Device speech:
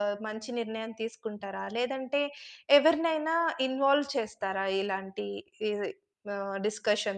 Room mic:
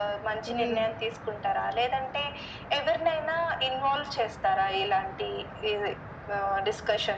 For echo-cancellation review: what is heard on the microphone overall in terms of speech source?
both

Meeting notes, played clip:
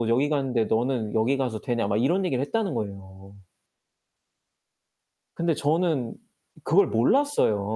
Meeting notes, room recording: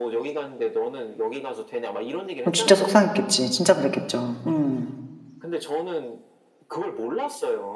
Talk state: both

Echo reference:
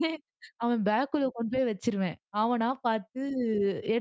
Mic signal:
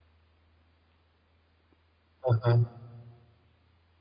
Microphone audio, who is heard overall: user only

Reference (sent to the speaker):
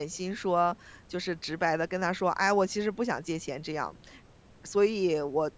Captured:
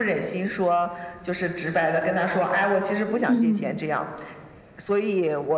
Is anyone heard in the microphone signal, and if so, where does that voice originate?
both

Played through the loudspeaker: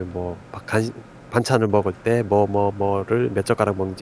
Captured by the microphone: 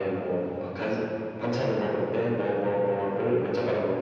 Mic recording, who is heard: echo only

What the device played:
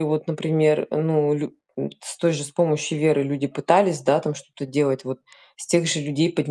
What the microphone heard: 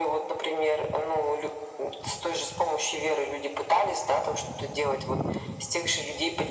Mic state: echo only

